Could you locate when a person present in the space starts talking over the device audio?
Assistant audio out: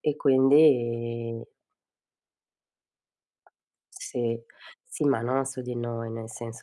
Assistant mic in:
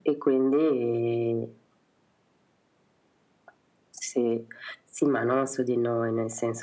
none

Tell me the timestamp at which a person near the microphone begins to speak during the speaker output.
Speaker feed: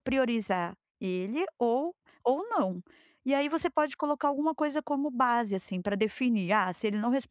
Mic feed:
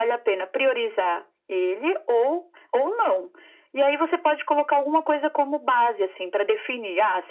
none

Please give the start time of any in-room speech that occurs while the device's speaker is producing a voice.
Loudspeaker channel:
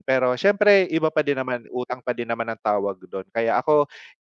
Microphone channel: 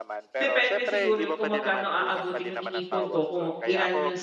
0 s

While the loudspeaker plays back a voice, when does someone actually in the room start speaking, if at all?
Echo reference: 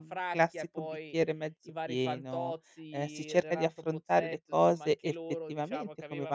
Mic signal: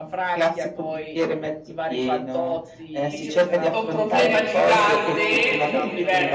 3 s

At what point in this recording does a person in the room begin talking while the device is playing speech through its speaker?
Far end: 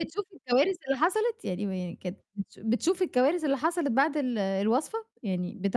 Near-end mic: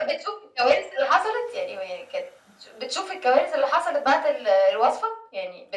none

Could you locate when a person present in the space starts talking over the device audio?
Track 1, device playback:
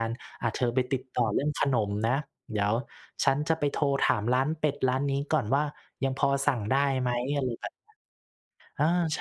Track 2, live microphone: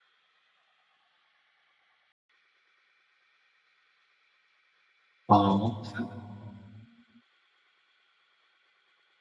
5 s

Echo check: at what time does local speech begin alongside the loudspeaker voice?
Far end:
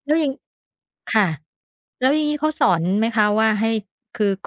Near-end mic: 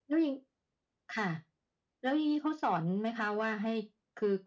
none

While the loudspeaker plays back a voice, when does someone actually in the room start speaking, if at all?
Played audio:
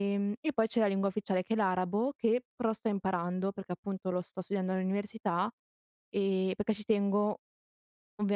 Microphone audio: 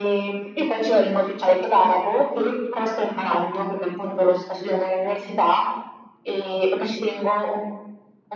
none

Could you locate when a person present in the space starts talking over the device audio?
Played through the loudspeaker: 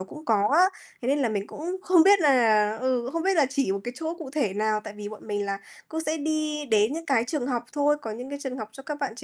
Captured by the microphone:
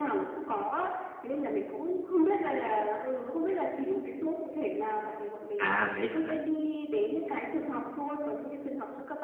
6 s

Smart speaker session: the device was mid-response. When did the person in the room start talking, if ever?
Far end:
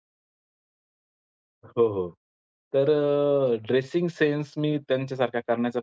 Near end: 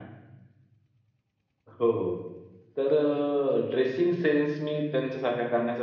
none

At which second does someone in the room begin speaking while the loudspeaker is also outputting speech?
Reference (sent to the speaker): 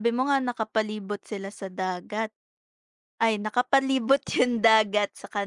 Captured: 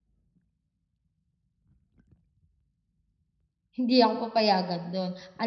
4 s

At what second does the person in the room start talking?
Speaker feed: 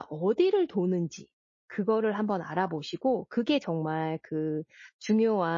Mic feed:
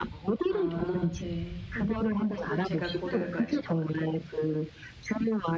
0 s

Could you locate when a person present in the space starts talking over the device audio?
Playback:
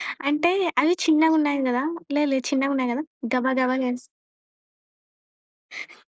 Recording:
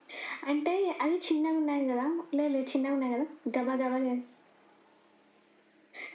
none

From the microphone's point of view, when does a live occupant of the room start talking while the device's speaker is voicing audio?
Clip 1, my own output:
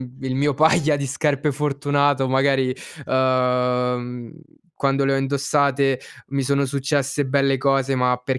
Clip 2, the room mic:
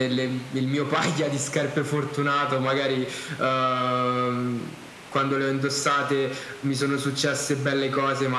none

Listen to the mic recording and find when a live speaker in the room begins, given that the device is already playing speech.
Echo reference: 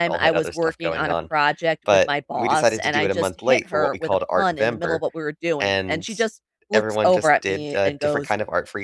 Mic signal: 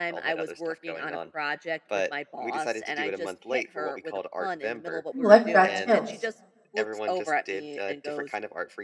5 s

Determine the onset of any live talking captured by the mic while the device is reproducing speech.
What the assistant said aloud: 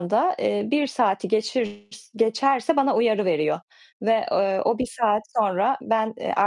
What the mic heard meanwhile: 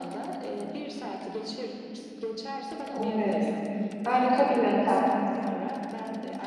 3 s

